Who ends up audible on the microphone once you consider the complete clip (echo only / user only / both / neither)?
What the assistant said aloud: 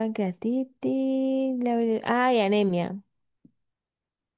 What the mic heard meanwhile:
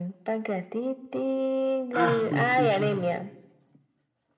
both